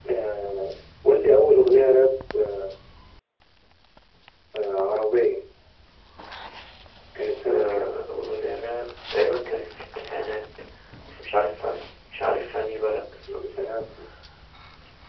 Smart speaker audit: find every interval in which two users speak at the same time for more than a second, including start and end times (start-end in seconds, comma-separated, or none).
none